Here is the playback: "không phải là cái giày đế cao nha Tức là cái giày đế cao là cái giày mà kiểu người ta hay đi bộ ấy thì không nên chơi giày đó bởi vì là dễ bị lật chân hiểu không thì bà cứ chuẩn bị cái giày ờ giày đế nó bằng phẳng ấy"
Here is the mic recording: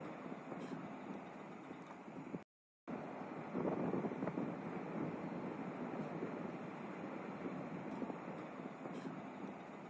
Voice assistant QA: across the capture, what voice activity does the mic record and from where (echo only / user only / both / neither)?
neither